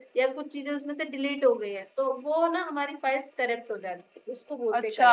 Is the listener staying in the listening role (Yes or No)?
No